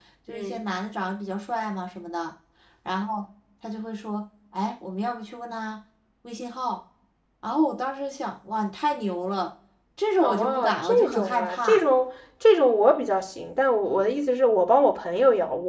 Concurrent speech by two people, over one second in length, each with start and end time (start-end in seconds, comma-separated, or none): 10.2-11.8